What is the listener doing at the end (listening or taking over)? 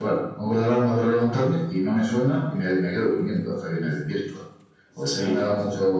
listening